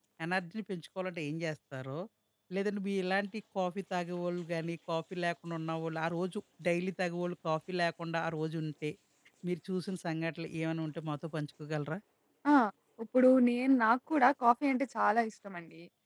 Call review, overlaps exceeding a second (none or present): none